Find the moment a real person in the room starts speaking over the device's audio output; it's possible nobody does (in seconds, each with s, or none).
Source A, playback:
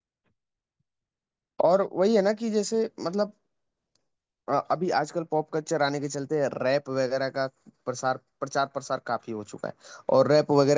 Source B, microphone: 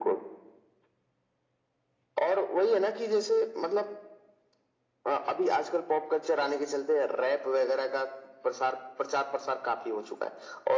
none